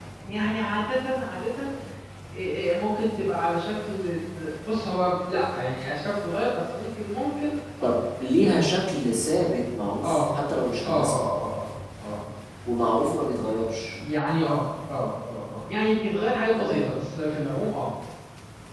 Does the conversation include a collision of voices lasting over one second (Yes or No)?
No